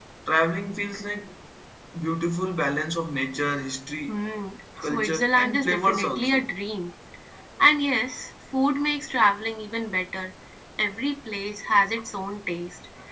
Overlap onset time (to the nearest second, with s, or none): 5 s